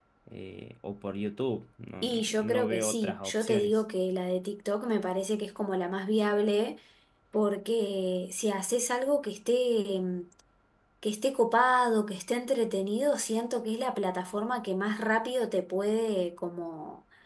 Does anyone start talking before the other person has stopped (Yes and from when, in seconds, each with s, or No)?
Yes, from 2.0 s